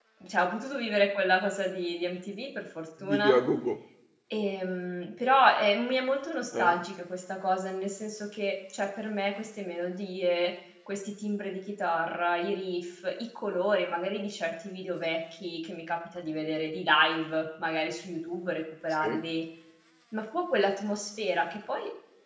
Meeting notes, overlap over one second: none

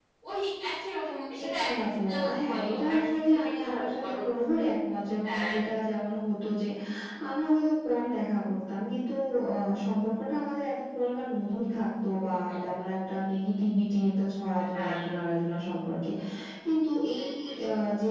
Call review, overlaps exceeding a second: present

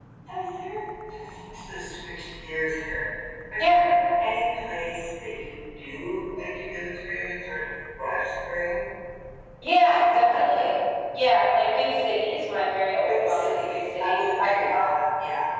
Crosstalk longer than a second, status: present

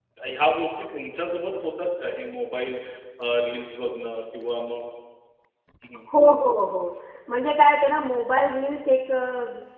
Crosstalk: none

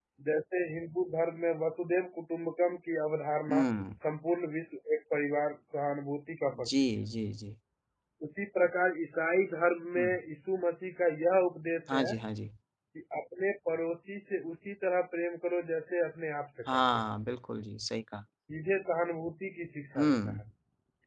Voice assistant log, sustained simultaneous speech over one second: none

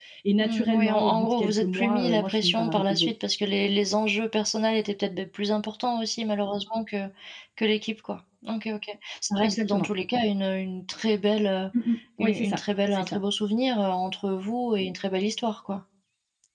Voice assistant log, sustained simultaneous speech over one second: present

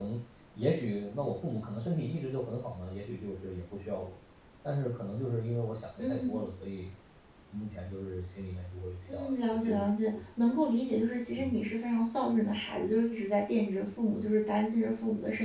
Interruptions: present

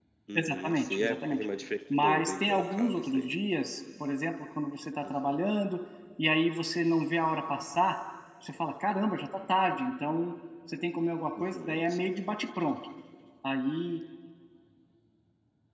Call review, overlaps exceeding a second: present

